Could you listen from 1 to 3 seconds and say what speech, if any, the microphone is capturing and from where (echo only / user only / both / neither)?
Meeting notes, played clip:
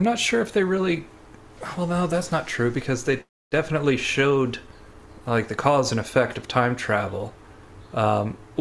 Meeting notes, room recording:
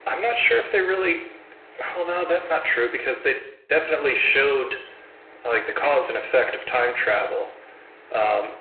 echo only